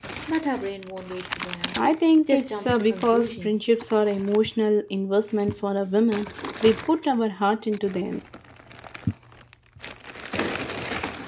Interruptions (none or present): present